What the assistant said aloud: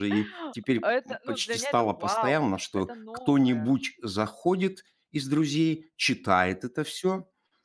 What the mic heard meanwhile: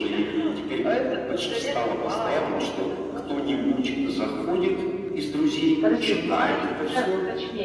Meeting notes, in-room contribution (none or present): present